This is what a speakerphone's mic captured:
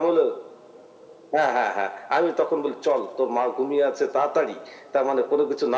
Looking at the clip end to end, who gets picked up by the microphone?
echo only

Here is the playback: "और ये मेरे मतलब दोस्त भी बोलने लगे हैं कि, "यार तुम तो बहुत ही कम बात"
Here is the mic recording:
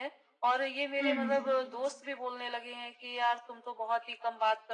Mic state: both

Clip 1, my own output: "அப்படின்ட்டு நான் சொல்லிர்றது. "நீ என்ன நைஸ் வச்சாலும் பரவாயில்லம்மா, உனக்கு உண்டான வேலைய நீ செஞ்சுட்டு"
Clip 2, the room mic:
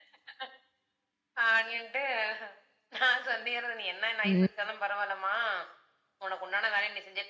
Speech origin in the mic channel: both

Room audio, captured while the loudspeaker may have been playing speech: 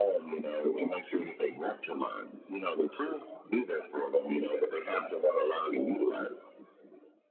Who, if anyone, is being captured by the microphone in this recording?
echo only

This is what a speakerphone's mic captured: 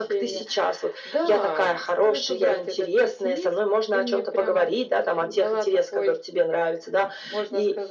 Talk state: echo only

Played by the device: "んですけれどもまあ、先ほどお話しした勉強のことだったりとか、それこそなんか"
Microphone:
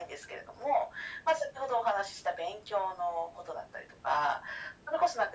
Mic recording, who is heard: echo only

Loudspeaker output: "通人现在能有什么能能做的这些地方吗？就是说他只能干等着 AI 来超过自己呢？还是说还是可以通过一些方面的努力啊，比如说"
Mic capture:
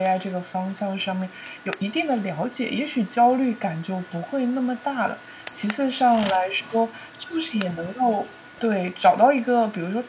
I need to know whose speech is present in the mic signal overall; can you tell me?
user only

